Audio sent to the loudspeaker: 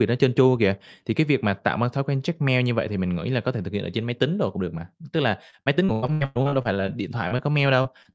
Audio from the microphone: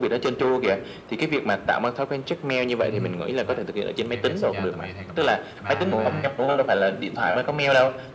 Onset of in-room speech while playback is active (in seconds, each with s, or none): 2.8 s